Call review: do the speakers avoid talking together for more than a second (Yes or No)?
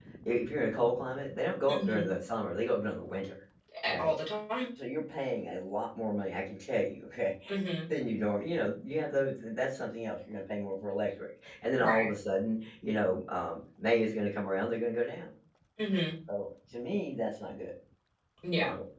Yes